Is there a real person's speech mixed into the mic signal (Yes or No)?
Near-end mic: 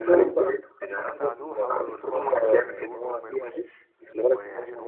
Yes